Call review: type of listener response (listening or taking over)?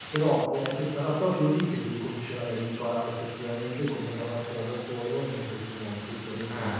taking over